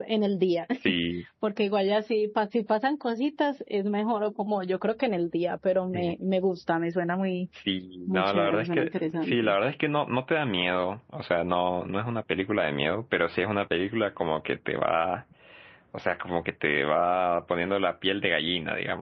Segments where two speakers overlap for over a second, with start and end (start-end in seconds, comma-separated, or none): 8.1-9.6